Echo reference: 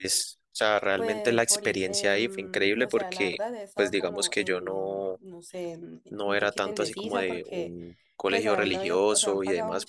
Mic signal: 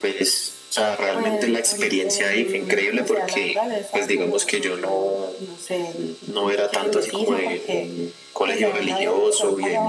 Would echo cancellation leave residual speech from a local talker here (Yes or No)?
No